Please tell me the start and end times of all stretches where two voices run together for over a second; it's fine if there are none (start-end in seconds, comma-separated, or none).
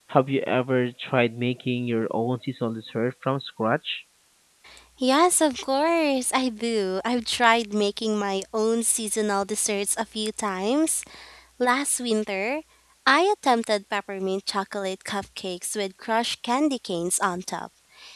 none